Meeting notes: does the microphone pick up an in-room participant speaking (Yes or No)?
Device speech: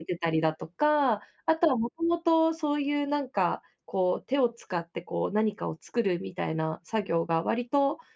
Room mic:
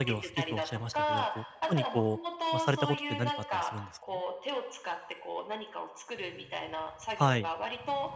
Yes